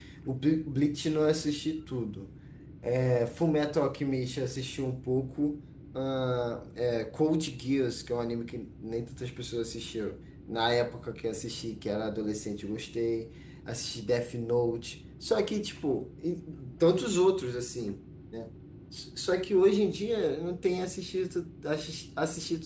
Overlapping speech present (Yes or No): No